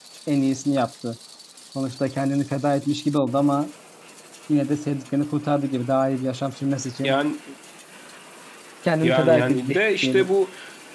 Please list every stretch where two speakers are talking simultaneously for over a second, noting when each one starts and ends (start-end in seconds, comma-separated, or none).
9.0-10.3